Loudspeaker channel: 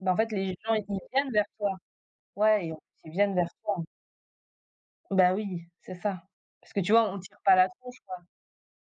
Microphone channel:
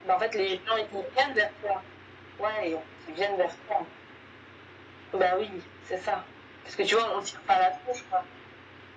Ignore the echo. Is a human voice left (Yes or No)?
No